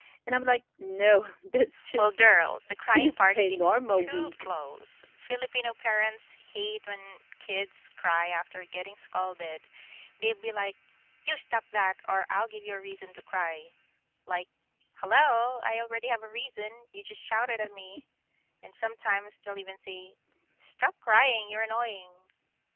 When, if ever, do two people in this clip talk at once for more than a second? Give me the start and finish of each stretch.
2.9-4.5

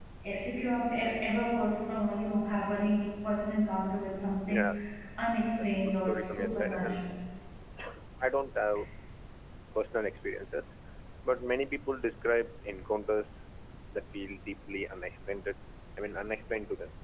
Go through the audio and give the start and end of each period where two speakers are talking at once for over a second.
5.9-7.1

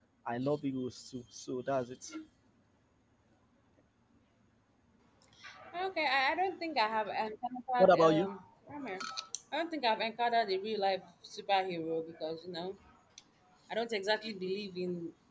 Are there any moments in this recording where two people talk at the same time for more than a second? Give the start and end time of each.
none

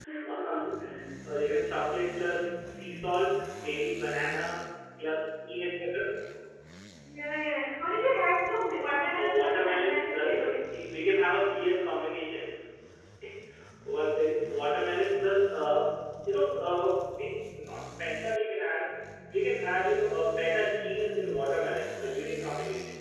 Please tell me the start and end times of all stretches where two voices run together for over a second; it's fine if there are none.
9.1-10.6

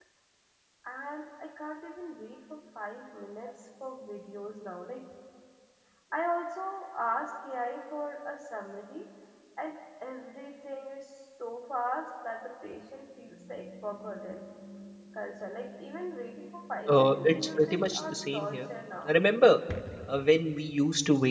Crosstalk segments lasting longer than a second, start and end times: 16.9-18.7

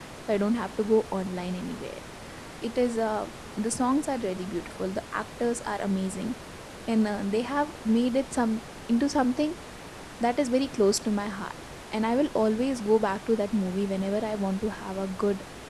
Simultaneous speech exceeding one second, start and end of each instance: none

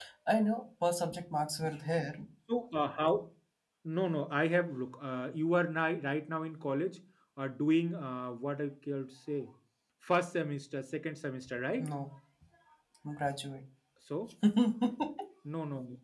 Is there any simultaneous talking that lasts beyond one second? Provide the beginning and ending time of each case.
none

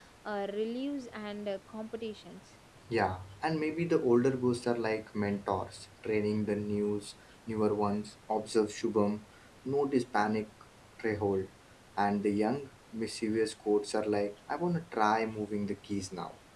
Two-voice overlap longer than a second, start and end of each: none

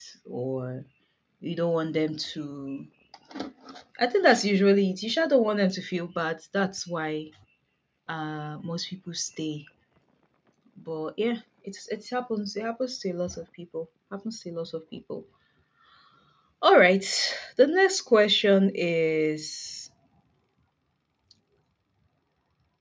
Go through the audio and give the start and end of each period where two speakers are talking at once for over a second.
none

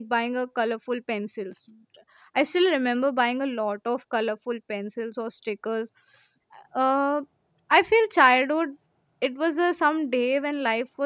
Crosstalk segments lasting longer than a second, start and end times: none

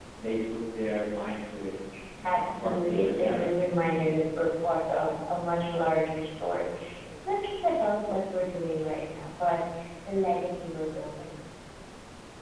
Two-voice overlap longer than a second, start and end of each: 2.2-3.5

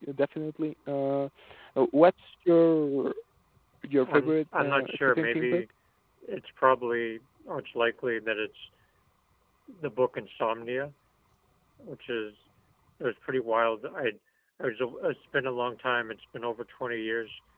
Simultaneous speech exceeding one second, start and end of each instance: 4.1-5.6

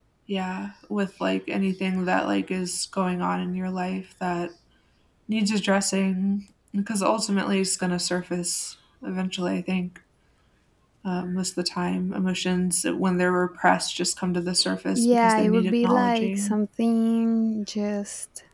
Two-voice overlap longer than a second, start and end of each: 14.9-16.6

